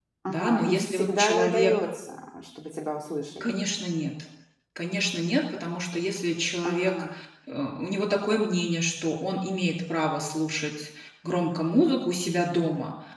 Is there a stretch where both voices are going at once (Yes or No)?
Yes